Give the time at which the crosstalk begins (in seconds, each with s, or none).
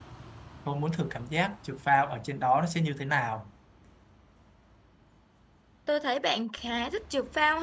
none